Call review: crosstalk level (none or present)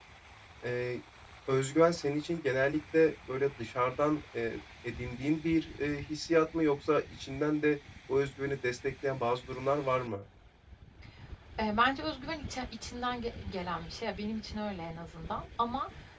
none